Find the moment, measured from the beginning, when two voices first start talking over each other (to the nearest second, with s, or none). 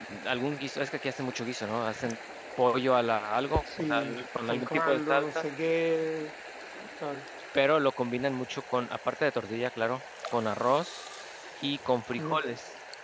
4 s